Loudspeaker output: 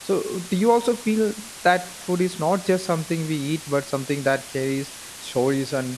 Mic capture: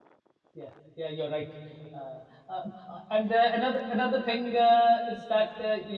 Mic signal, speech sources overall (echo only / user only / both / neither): user only